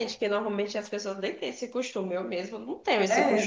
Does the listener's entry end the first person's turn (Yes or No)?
Yes